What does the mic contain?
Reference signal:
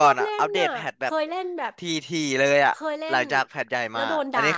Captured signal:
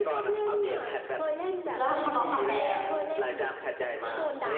both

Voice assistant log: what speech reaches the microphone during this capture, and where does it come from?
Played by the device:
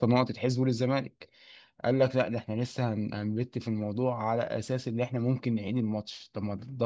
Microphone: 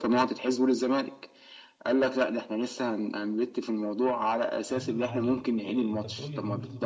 both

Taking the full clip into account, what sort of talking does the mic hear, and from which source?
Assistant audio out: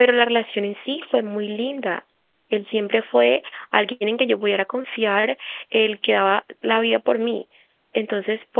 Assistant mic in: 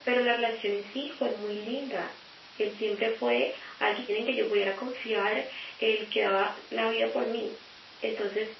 echo only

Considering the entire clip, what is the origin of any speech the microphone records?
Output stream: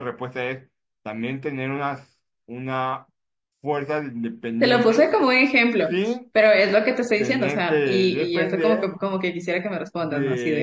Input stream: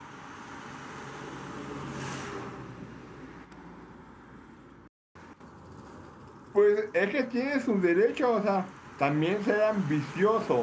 user only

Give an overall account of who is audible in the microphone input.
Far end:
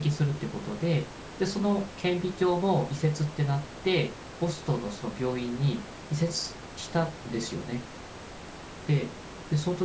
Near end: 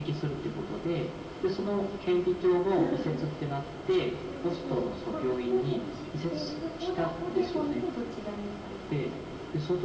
both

